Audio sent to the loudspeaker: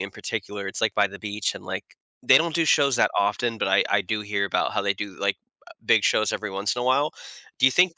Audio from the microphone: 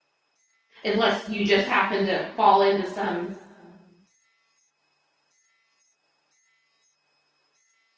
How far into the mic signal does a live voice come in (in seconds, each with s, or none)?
0.8 s